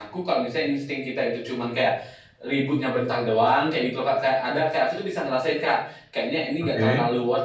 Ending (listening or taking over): listening